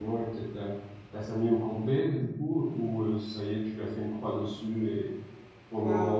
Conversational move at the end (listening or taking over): listening